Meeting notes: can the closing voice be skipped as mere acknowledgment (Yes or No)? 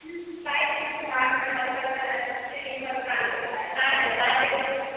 Yes